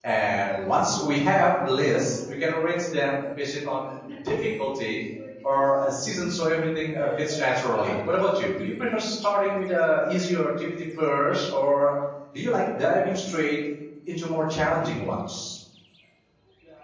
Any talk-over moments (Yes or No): No